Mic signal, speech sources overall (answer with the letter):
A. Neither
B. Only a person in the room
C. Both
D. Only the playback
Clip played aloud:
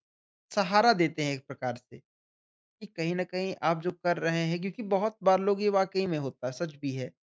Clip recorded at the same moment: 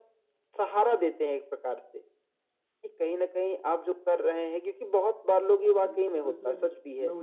C